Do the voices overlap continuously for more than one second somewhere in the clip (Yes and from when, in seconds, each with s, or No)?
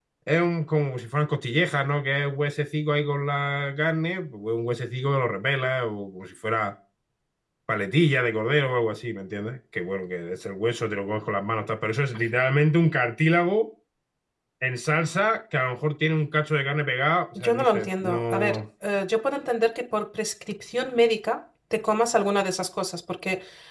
Yes, from 17.4 s